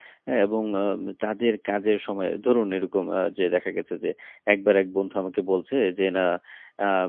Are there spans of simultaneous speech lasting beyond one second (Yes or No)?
No